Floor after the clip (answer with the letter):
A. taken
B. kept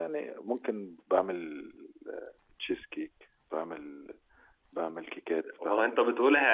A